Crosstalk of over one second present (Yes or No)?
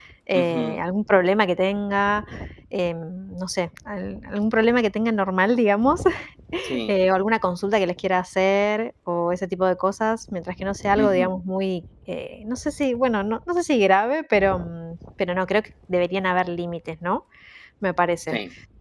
No